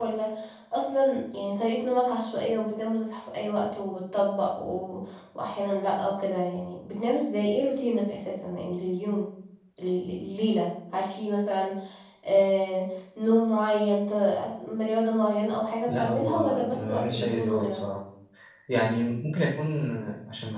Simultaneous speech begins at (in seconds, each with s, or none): 15.9 s